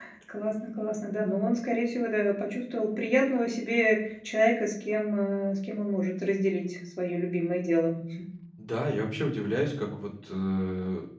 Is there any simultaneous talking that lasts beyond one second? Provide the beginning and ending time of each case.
none

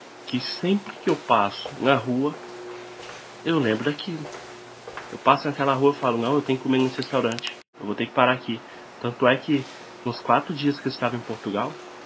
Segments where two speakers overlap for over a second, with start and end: none

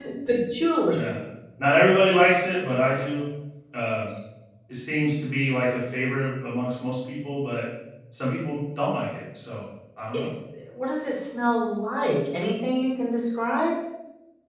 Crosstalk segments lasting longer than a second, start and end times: none

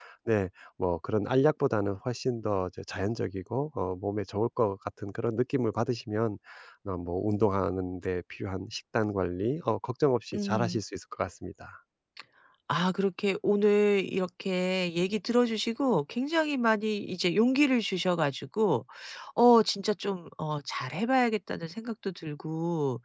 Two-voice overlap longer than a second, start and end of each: none

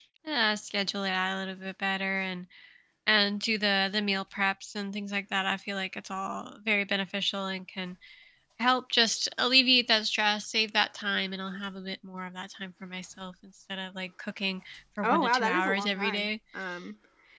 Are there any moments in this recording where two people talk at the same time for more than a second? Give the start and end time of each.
15.0-16.3

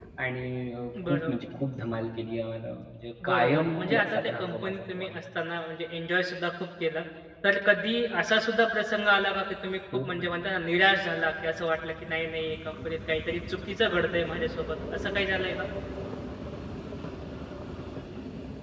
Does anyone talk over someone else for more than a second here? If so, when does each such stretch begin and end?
3.2-5.2

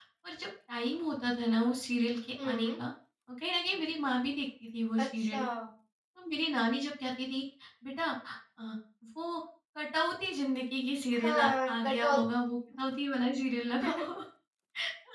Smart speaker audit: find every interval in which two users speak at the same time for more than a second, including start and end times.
11.2-12.5

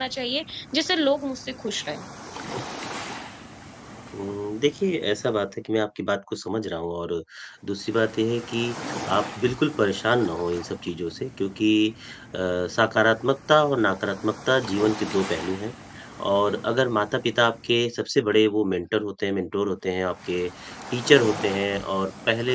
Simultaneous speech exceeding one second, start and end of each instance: none

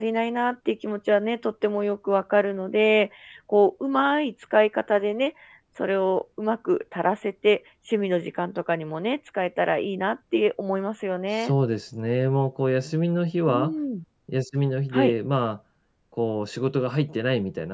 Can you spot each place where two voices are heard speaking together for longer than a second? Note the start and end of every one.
none

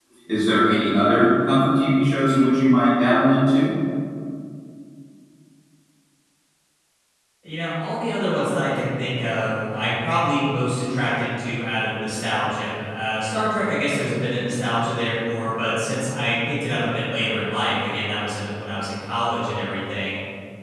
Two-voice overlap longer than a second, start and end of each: none

